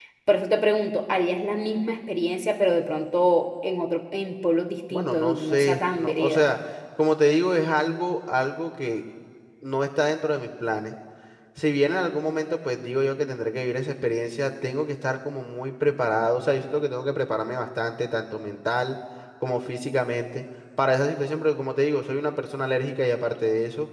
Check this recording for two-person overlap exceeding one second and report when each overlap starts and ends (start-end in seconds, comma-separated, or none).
4.9-6.5